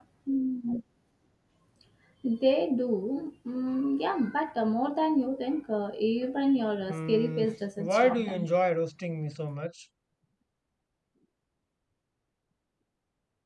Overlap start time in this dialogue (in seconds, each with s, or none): 6.9 s